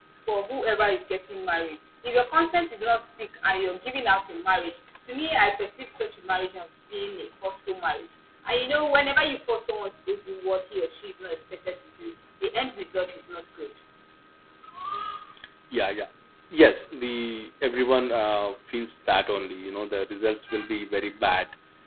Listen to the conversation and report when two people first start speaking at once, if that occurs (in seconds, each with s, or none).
none